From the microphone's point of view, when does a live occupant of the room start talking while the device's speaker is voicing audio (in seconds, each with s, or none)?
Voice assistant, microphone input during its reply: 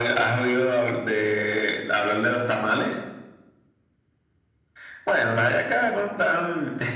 none